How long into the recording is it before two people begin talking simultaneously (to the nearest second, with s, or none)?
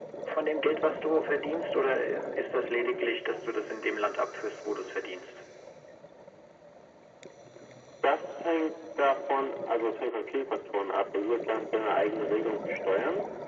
none